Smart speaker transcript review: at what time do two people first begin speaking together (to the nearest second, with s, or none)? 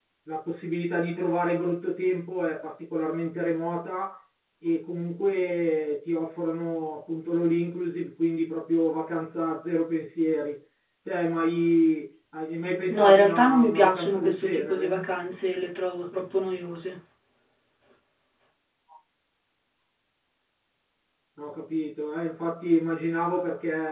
13 s